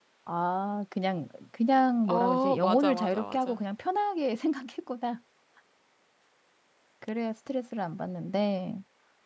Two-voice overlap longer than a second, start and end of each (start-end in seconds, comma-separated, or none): 2.1-3.6